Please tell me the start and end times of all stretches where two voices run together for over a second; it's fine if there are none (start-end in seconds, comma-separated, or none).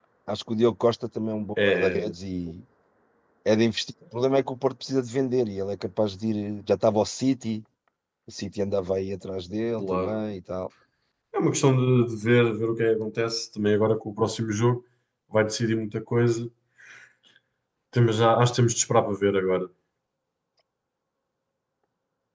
none